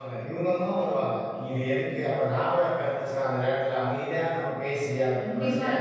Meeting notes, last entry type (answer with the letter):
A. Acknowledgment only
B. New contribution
A